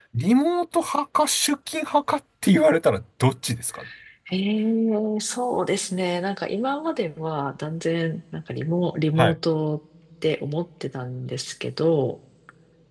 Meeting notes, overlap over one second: none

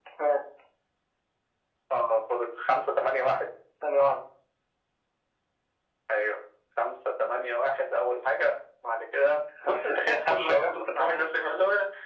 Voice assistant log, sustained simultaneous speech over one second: present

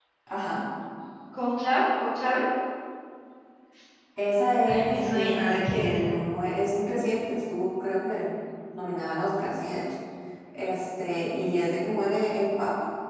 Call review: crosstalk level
present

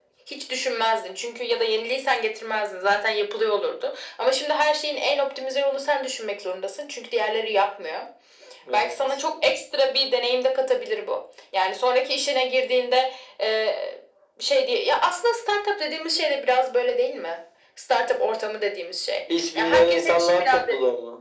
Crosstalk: present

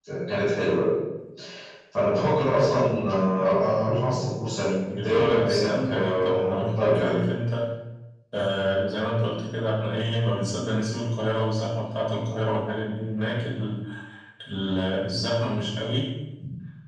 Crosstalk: present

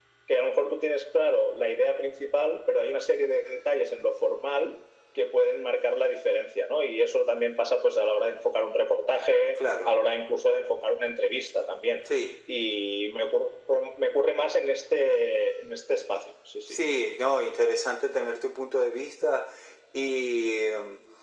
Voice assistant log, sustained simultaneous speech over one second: none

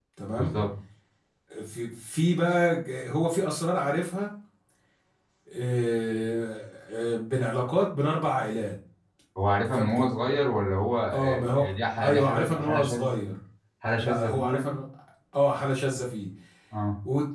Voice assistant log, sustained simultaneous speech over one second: present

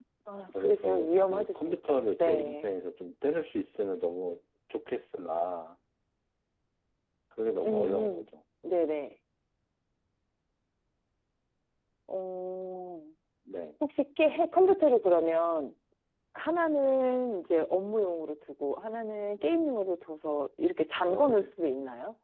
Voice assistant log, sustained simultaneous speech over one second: present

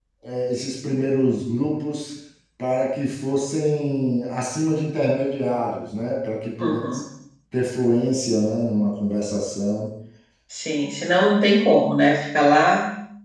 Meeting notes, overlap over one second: none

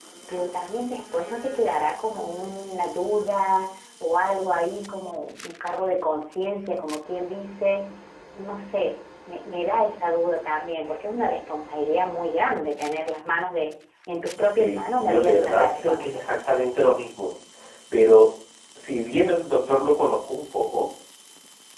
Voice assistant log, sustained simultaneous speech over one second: present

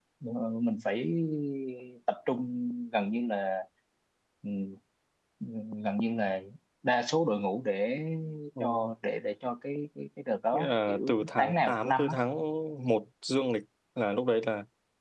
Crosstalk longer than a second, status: present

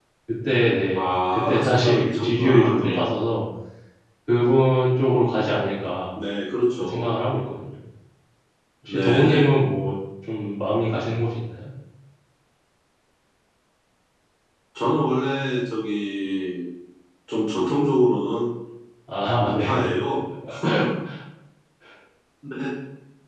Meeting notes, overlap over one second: present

